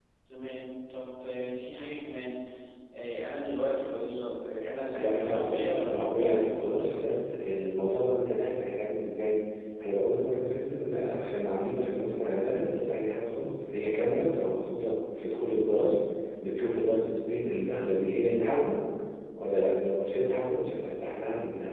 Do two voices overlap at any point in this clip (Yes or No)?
Yes